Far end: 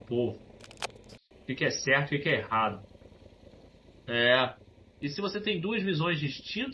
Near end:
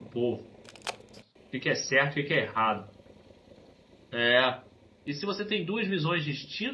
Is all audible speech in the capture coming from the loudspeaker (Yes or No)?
Yes